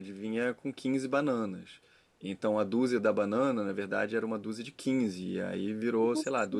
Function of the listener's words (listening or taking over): listening